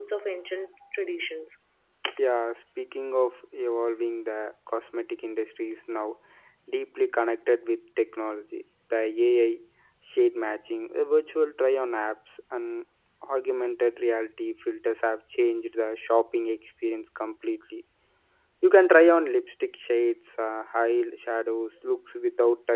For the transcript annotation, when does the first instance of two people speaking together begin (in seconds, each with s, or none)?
none